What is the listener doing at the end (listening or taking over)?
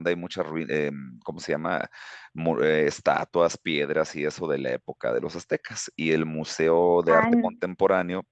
listening